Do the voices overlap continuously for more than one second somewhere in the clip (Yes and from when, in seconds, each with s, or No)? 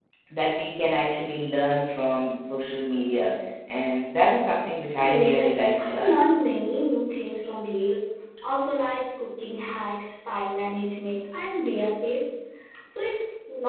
Yes, from 5.0 s